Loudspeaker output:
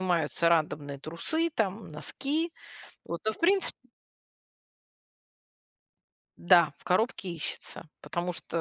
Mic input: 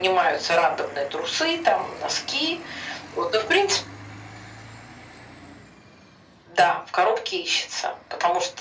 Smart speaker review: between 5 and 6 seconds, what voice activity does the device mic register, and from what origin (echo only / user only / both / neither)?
neither